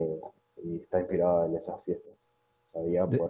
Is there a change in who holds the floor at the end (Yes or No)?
No